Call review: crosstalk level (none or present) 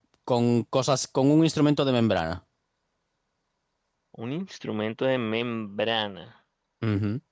none